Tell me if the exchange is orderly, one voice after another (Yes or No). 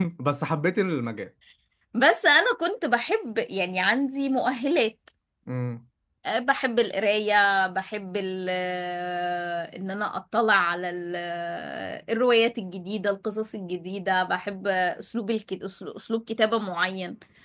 Yes